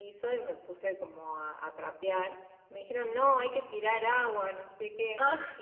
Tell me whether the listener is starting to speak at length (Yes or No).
No